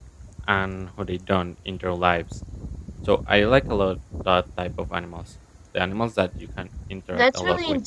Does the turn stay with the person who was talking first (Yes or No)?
No